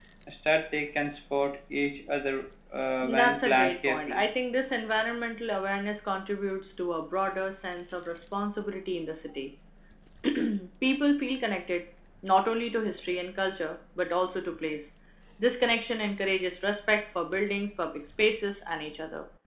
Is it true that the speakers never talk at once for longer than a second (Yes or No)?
No